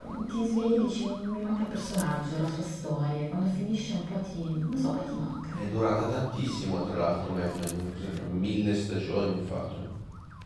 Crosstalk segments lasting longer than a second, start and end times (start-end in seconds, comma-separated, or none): none